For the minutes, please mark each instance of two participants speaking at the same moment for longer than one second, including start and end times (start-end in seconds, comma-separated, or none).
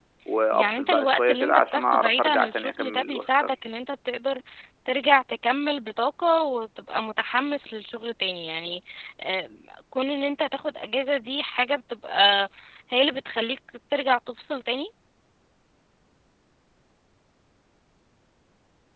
0.5-3.5